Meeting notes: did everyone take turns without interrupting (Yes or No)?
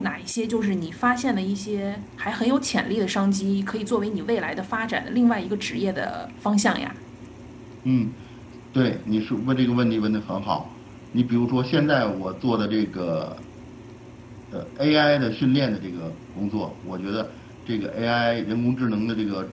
Yes